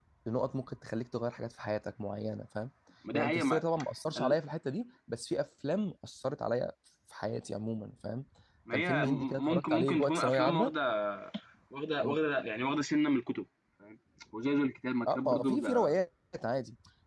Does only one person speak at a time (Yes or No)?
No